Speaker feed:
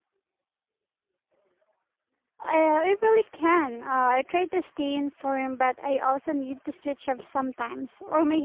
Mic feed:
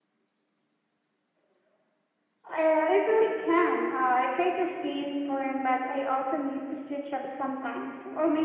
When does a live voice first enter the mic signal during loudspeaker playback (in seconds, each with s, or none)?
none